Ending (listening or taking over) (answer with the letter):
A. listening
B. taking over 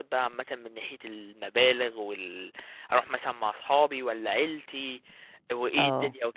B